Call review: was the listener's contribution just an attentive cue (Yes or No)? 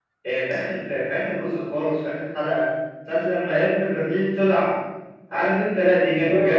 Yes